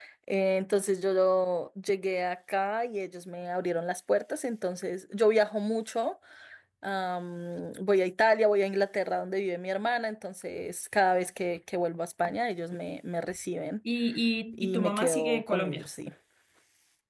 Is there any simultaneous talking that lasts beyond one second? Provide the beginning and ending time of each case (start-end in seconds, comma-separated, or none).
14.5-15.8